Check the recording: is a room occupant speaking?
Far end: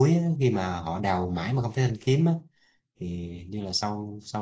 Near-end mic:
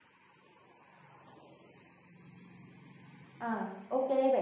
Yes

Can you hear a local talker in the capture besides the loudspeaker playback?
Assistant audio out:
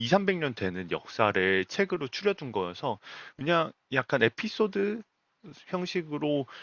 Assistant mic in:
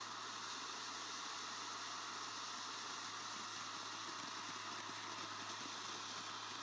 No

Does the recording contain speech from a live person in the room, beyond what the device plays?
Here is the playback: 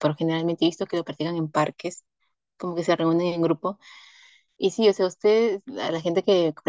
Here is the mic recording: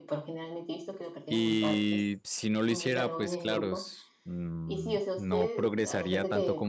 Yes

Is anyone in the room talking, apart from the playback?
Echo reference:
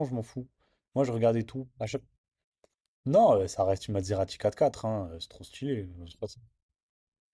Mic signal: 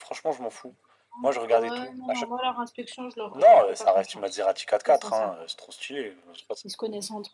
Yes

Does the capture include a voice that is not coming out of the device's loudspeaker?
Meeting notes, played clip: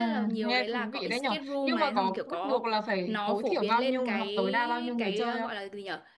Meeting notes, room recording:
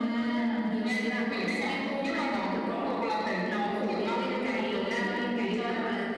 No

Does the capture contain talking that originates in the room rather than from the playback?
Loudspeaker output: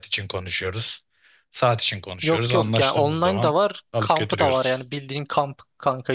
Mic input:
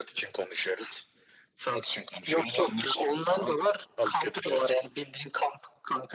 No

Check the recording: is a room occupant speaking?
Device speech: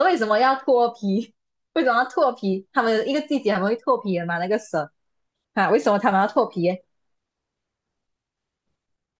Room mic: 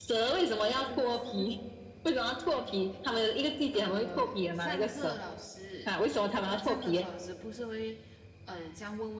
Yes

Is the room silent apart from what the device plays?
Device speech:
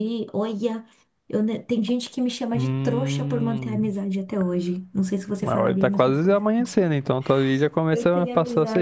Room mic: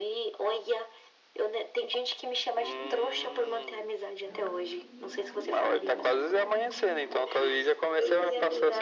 No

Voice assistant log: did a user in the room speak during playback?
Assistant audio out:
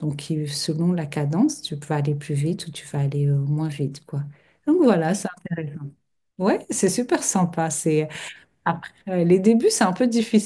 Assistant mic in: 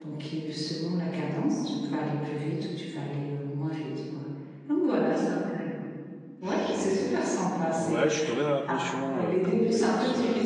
Yes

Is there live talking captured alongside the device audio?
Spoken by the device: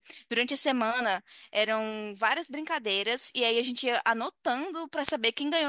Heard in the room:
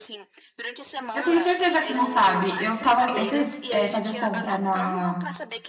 Yes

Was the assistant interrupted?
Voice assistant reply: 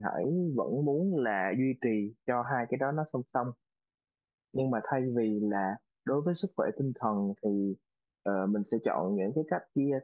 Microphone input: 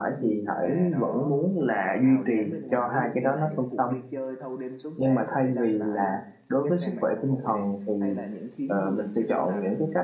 Yes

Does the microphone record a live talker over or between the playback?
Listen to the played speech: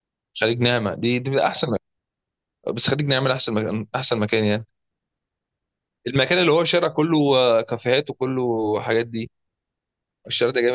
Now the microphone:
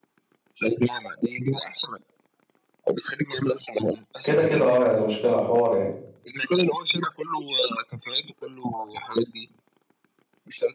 Yes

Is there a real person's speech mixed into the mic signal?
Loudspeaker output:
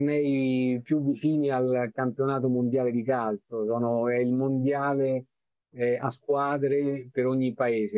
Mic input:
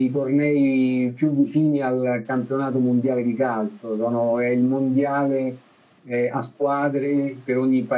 No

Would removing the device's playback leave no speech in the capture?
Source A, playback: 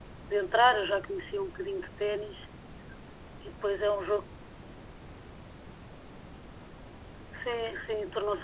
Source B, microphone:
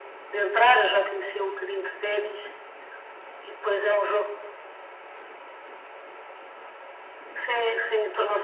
Yes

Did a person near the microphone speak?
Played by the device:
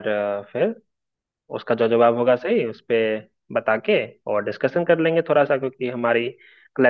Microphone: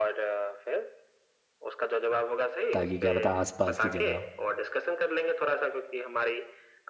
Yes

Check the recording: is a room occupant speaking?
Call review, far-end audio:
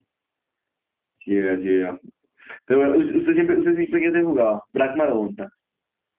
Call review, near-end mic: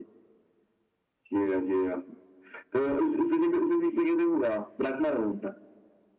No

